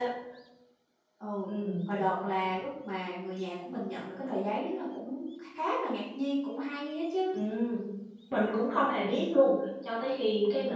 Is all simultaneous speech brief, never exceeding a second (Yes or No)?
Yes